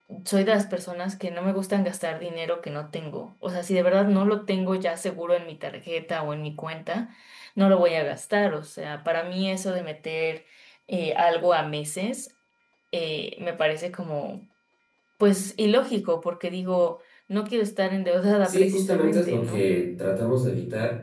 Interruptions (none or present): present